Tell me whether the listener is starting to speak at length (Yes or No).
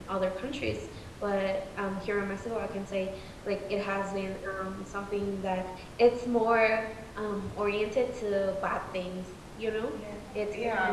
No